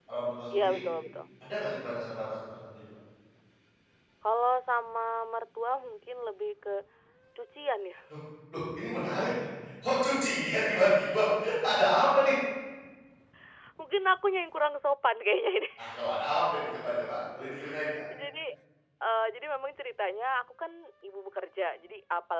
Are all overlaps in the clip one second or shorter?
Yes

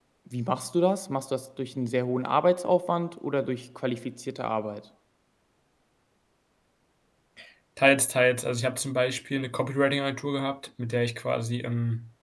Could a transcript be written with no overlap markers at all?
Yes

